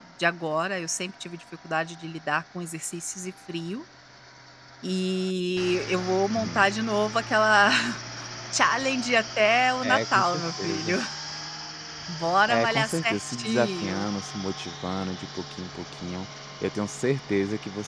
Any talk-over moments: Yes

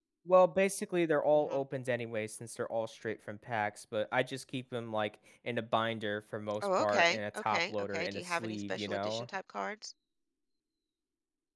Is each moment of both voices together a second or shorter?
No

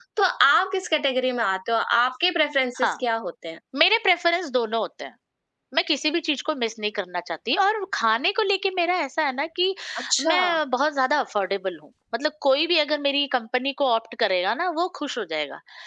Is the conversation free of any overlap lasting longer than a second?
Yes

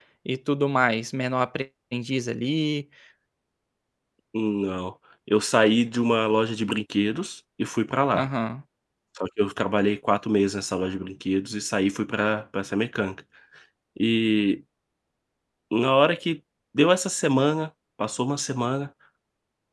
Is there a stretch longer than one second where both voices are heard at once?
No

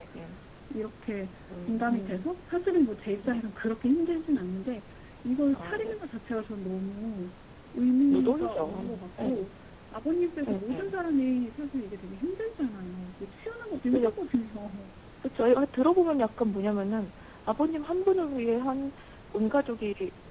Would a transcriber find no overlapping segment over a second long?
No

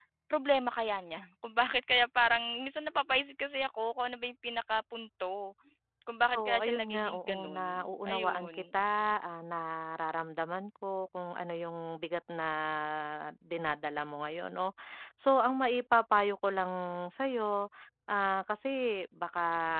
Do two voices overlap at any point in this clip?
Yes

